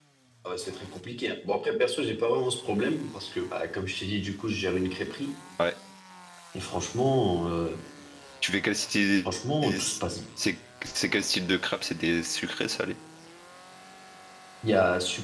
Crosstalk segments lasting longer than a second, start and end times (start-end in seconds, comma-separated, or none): none